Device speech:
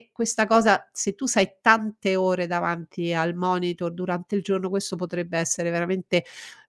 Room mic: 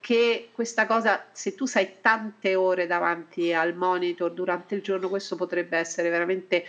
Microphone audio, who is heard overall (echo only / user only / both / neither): echo only